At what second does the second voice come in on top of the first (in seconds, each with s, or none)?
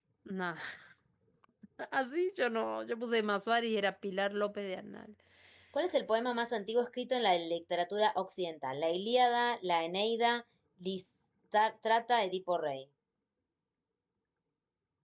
none